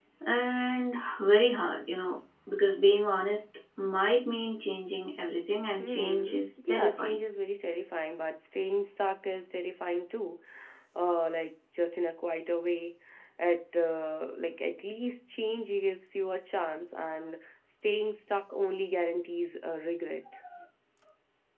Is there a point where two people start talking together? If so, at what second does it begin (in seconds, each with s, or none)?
5.8 s